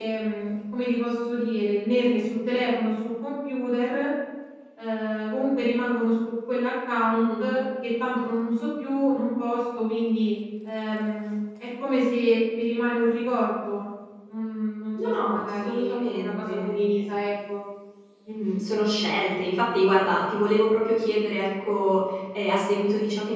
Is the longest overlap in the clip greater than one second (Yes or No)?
Yes